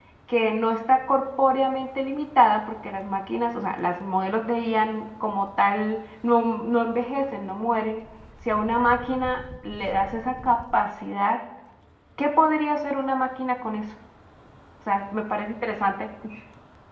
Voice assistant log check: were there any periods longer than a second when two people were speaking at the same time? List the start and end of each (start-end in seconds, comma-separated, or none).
none